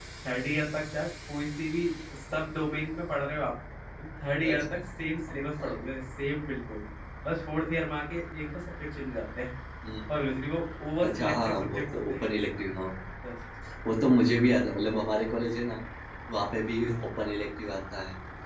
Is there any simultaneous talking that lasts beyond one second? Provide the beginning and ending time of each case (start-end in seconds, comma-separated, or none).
11.1-12.3